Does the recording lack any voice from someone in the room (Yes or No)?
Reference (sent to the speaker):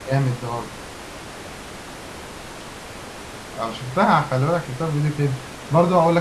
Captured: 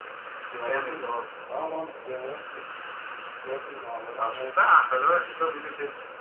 No